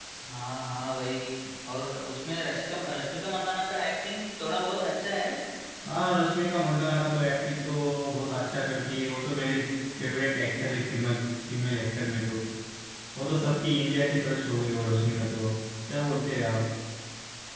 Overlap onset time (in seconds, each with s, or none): none